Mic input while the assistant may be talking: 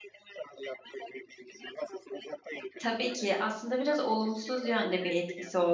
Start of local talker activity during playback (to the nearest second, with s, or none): 3 s